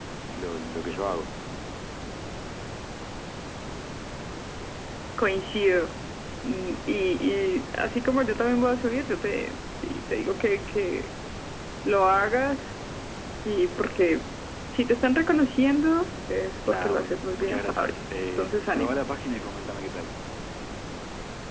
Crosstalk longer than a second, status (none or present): present